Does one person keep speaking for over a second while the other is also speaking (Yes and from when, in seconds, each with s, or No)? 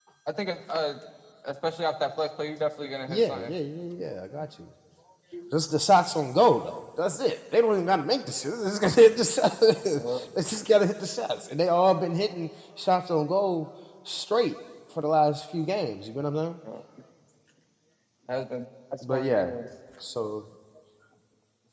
No